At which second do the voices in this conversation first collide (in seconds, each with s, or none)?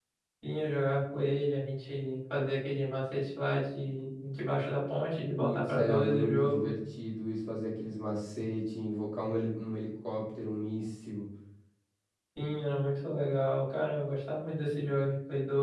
5.4 s